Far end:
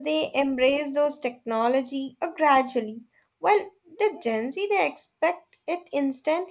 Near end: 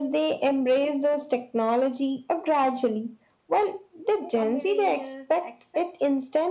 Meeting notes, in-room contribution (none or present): present